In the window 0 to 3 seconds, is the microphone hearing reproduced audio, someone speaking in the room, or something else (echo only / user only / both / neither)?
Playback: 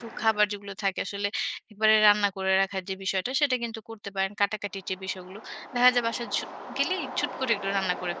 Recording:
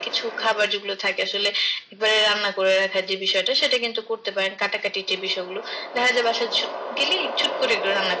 echo only